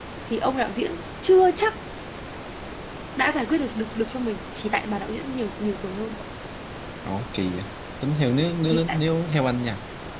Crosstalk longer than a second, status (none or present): none